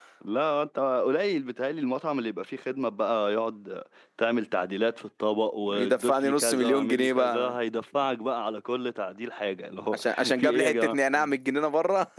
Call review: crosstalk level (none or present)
present